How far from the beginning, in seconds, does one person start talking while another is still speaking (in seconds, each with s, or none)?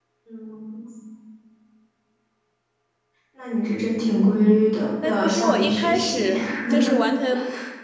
5.0 s